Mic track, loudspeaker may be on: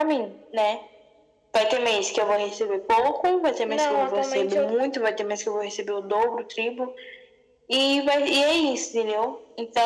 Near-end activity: present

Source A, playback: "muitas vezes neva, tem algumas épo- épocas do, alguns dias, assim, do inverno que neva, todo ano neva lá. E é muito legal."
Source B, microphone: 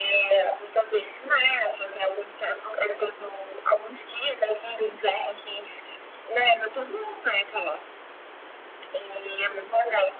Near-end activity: none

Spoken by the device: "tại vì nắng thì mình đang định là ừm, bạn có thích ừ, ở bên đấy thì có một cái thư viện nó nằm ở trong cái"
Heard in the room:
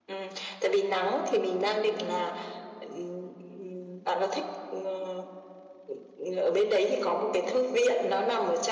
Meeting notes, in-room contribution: none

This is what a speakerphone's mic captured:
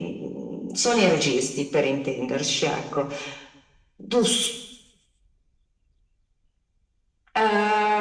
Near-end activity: none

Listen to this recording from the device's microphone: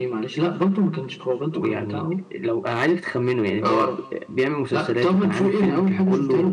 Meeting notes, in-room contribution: present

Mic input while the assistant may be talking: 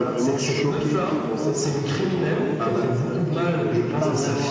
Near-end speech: present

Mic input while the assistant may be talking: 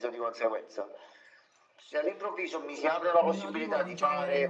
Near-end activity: present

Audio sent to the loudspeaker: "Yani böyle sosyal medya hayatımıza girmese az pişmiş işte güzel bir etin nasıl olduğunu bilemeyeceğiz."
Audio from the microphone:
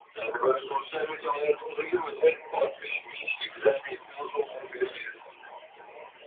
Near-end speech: present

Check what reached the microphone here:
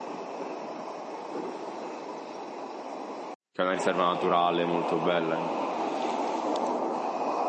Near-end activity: present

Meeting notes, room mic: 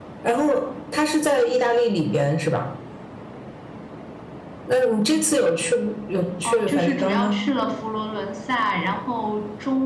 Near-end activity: present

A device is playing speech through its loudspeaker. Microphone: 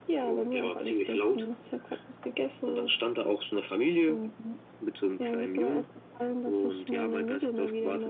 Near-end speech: none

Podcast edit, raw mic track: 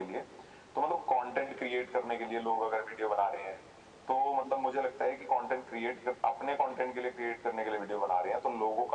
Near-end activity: none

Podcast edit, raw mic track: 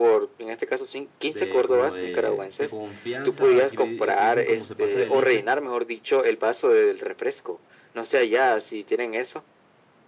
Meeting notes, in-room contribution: present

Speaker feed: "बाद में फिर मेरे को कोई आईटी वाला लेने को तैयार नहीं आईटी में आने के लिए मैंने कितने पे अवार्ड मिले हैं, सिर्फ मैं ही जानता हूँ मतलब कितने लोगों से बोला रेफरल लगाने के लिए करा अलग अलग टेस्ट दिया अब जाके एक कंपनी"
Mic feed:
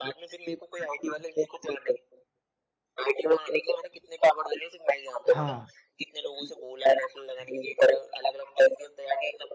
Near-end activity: present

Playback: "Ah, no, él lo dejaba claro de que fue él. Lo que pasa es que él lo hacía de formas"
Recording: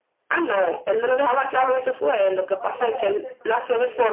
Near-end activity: present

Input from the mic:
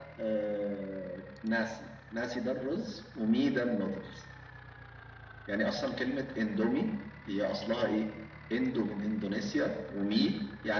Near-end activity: none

